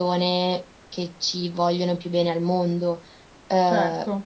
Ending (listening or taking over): listening